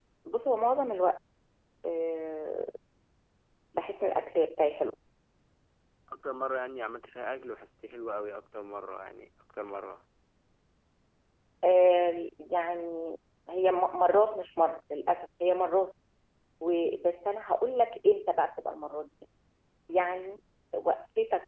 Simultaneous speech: No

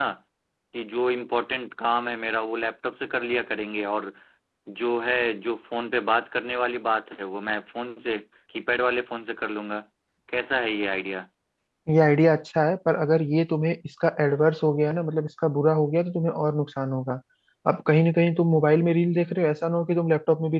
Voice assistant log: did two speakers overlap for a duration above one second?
No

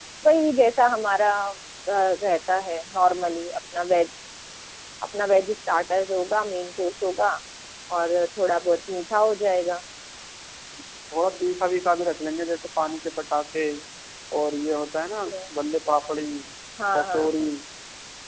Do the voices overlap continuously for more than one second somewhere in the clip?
No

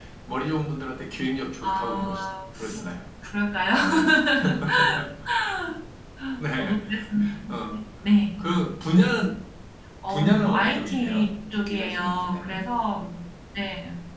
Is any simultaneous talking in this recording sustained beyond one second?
Yes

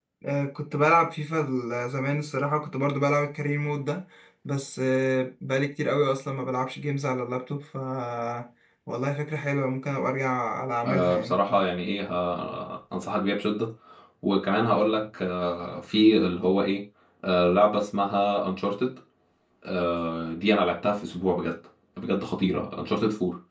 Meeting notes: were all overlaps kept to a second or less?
Yes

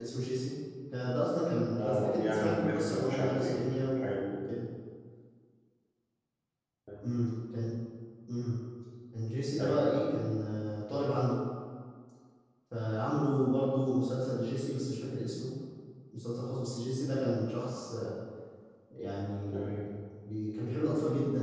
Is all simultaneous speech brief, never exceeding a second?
No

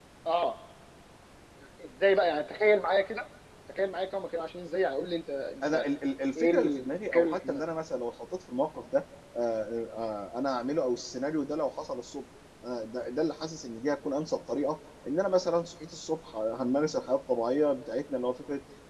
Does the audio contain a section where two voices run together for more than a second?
Yes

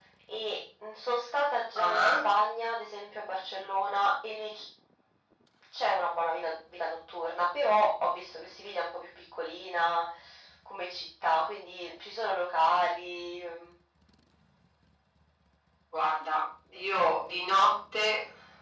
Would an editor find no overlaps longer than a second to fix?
Yes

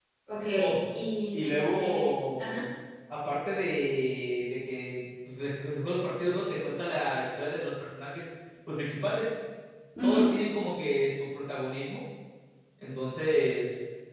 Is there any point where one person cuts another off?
Yes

